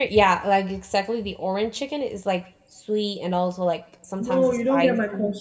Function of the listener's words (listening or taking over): taking over